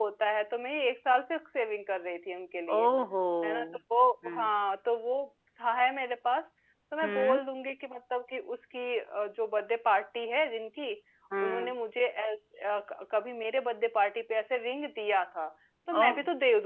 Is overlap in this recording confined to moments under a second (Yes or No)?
Yes